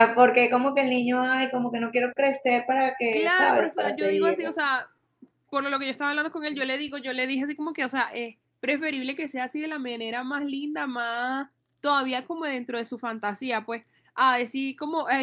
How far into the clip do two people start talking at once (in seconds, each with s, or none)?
3.1 s